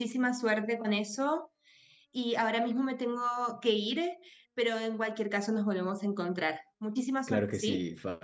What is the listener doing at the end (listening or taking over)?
taking over